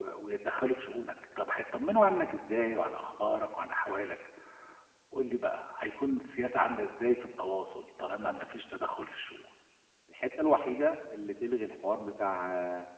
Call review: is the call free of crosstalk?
Yes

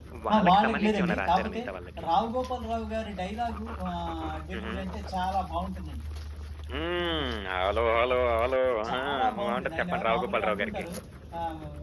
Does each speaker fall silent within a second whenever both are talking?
No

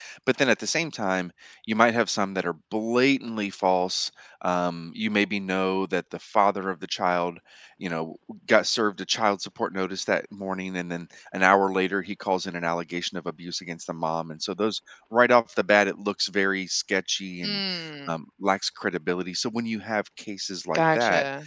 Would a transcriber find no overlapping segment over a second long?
Yes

